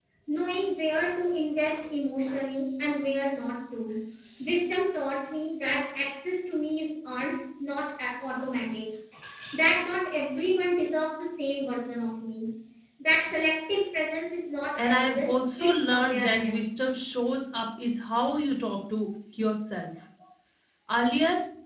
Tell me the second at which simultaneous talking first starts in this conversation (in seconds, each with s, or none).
14.8 s